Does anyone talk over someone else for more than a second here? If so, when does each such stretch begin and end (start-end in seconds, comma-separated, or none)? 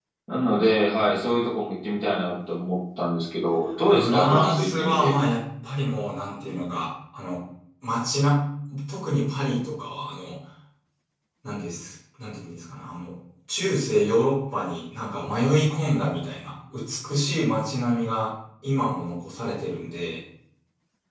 3.9-5.1